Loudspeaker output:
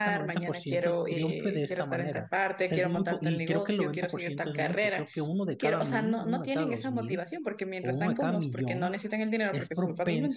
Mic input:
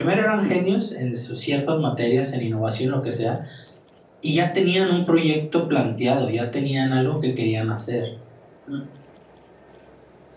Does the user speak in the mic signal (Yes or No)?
Yes